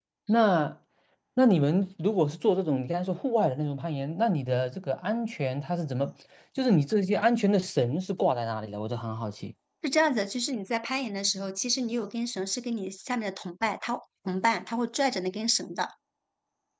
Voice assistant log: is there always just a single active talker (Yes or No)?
Yes